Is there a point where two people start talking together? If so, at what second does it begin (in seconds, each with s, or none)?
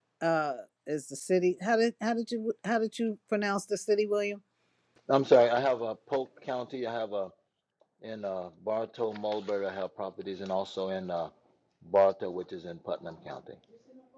none